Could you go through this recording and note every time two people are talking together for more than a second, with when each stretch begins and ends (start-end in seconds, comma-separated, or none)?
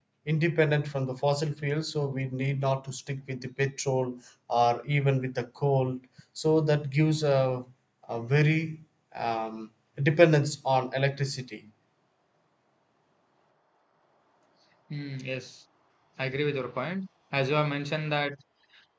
none